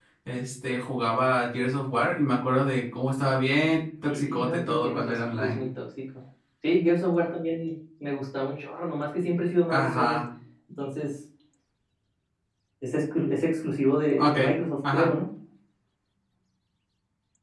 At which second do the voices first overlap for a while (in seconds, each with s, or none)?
4.1 s